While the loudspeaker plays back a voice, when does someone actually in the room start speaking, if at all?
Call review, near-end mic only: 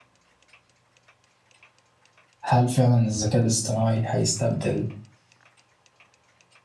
2.4 s

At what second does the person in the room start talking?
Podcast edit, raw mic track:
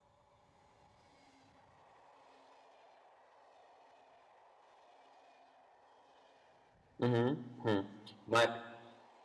7.0 s

